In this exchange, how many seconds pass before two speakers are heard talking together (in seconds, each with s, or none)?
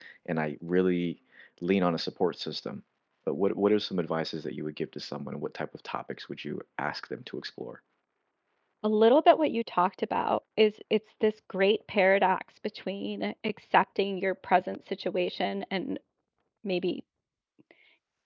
none